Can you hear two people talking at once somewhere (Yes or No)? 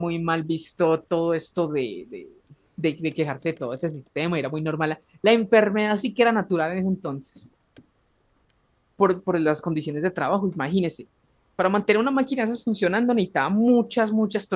No